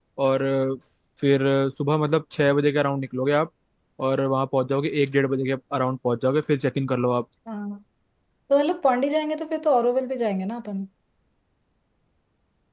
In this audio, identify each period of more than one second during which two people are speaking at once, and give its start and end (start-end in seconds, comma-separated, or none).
none